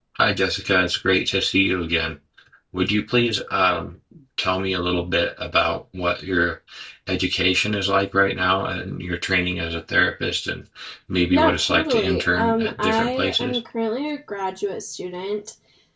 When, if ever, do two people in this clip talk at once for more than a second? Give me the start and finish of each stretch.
11.3-13.6

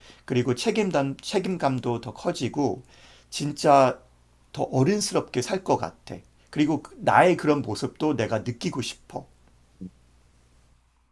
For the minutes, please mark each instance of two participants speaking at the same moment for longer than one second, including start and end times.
none

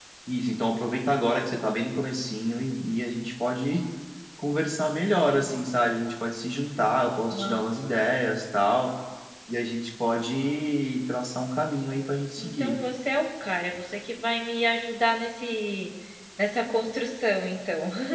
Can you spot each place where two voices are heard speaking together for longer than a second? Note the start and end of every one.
none

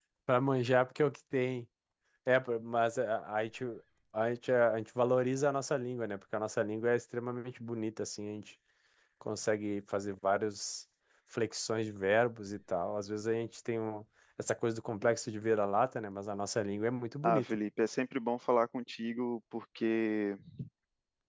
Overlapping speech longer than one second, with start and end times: none

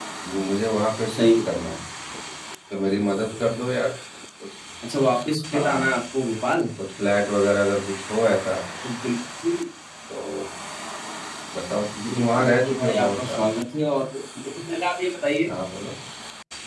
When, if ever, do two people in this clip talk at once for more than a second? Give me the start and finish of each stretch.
12.1-13.4

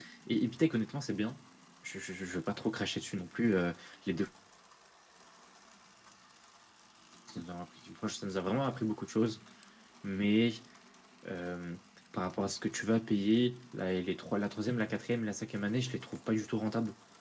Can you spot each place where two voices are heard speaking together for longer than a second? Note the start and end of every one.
none

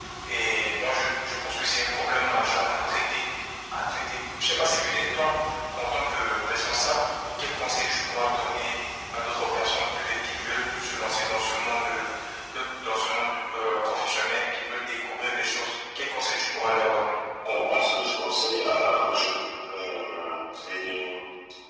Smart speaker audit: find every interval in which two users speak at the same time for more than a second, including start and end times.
none

